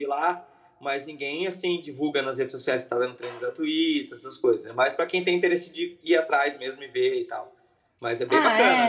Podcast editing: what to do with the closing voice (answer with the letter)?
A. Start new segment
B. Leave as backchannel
A